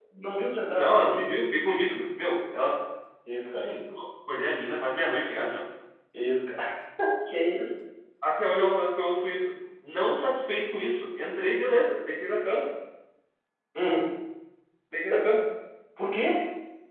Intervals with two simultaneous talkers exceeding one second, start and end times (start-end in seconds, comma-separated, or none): none